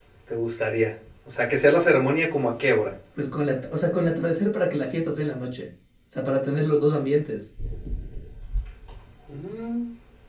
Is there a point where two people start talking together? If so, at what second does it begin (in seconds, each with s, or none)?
none